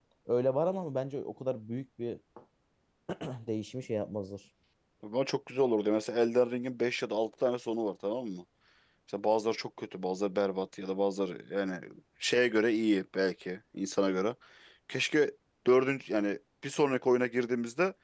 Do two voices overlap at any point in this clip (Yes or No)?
No